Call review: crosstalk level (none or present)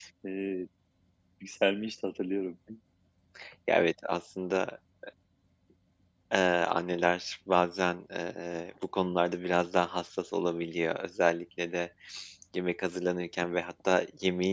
none